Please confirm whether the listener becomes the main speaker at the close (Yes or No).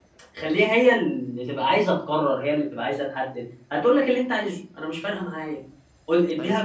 No